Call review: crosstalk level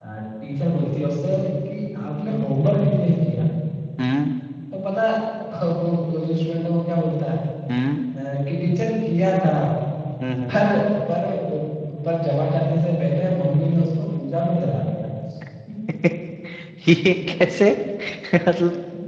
none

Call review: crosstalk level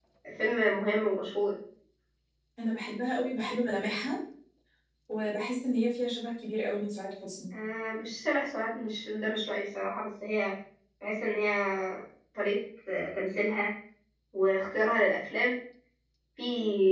none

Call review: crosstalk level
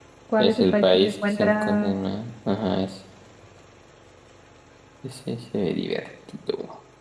present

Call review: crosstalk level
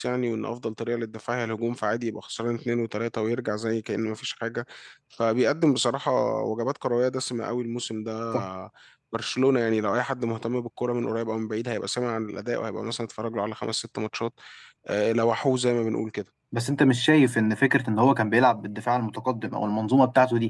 none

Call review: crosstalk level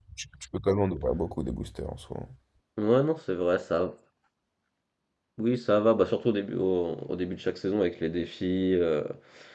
none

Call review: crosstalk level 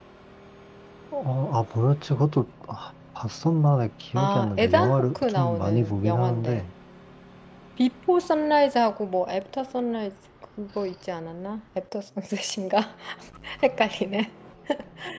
present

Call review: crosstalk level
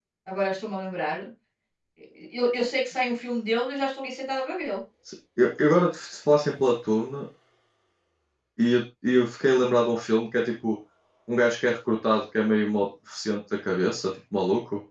none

